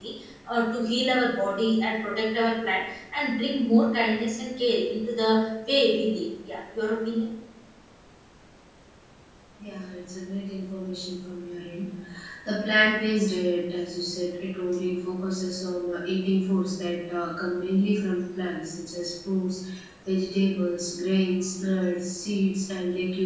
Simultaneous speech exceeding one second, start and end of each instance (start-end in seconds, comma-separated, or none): none